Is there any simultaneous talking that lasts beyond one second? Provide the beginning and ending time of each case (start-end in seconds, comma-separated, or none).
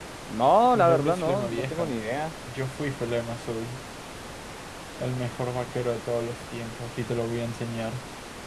0.7-1.9